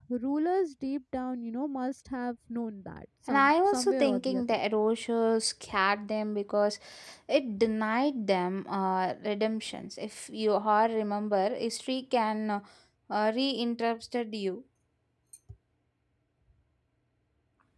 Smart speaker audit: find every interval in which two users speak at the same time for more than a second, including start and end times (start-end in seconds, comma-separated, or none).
3.3-4.6